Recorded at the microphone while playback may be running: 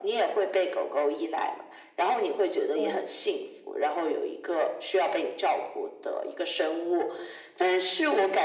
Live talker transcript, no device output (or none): 哦，